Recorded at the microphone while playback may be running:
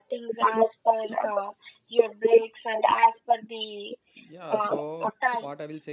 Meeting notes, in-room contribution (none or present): present